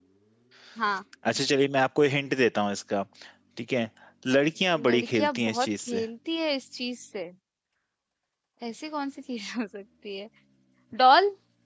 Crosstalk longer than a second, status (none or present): present